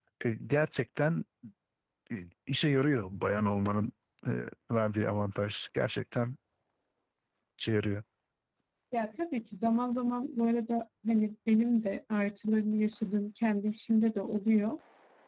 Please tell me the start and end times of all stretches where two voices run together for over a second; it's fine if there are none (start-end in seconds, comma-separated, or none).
none